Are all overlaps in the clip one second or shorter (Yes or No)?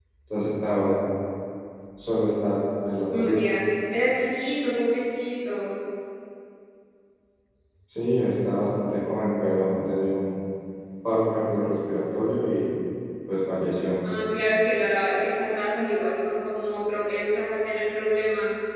Yes